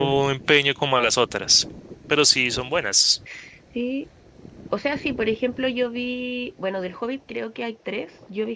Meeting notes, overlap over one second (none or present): none